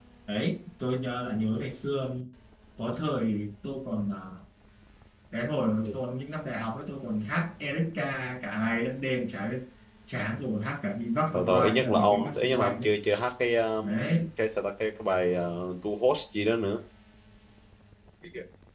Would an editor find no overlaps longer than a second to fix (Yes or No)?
No